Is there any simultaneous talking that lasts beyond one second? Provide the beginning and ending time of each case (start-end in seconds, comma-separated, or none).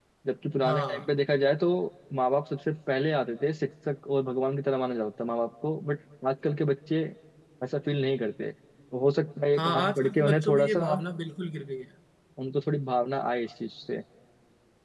9.6-11.0